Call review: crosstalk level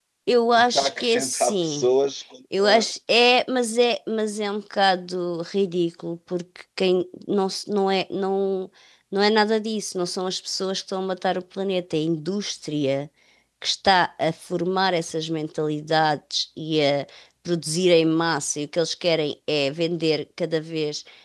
present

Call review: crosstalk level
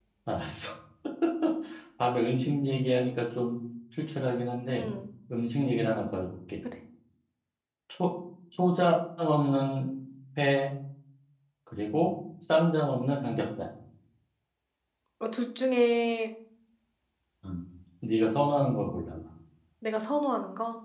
none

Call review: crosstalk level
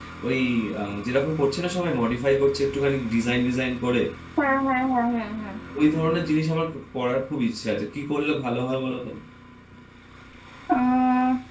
none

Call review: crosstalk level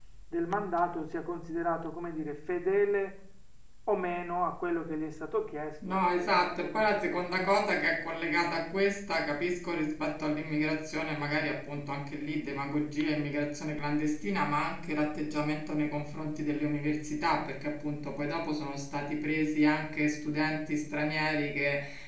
present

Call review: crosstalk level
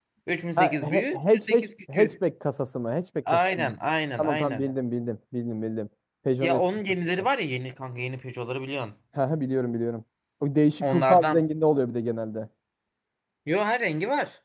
present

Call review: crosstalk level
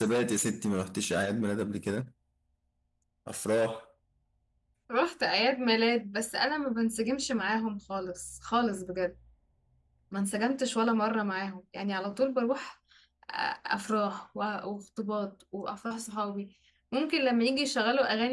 none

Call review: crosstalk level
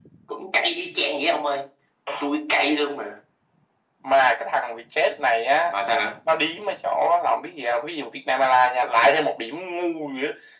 none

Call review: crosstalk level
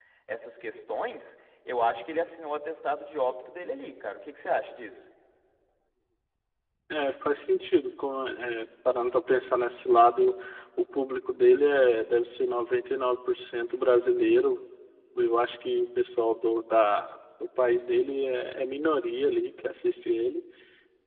none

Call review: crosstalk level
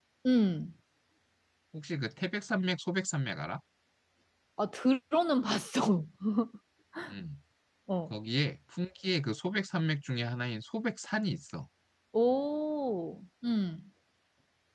none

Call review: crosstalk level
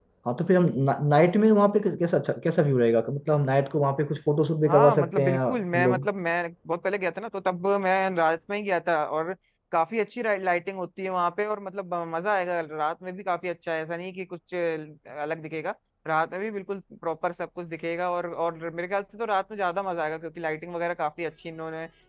present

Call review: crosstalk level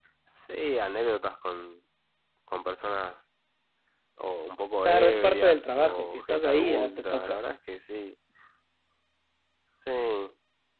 present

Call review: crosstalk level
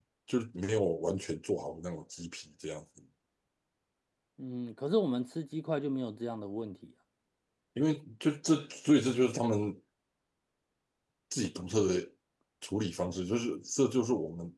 none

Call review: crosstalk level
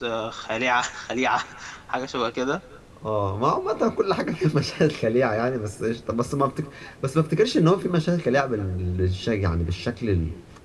none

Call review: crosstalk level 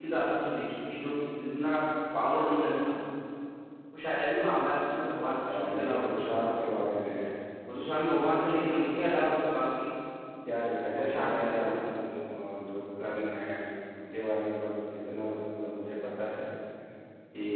present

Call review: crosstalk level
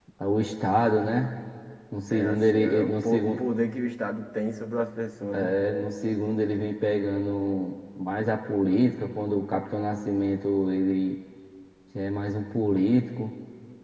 present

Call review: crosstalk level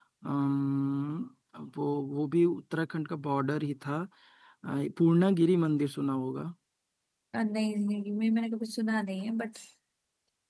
none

